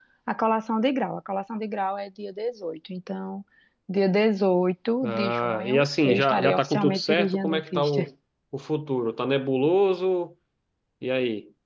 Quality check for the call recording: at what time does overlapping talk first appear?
5.0 s

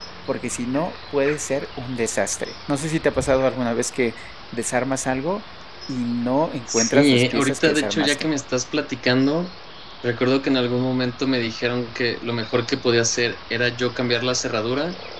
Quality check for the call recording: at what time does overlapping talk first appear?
6.7 s

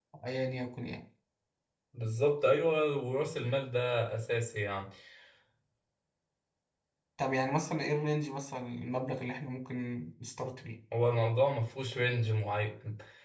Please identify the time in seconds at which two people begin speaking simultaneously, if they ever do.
none

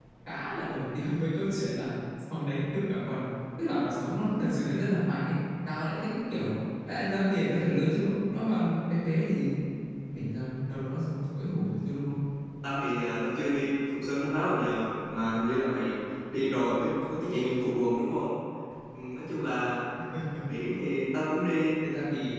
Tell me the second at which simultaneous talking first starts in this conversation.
none

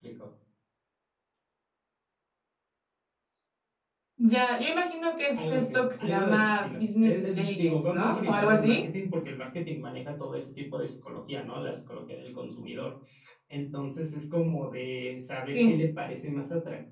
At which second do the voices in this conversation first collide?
5.3 s

